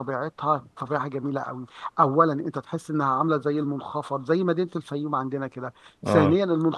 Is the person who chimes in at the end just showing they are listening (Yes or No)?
Yes